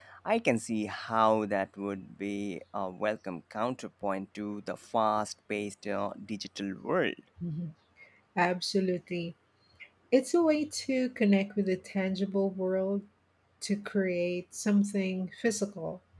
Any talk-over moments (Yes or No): No